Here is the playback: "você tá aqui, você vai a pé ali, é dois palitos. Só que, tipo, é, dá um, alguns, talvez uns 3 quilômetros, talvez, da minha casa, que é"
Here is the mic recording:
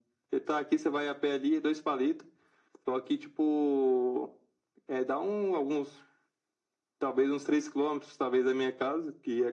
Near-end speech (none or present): none